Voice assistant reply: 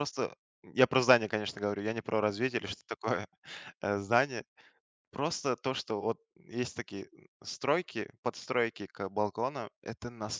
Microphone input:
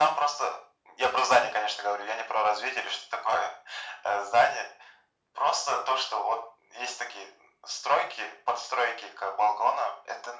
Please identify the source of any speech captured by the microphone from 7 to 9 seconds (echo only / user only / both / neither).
echo only